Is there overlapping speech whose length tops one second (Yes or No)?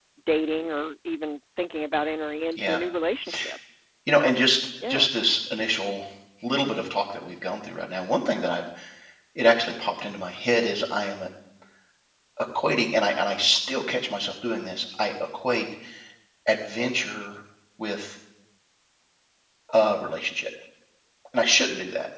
No